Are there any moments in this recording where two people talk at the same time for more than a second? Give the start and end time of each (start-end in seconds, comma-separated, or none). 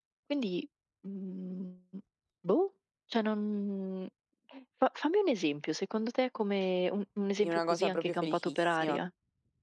7.4-9.0